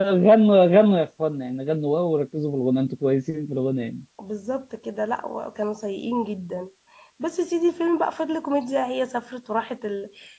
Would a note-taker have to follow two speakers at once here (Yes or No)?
No